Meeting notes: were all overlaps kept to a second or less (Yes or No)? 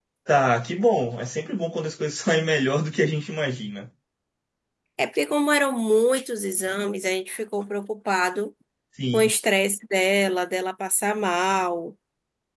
Yes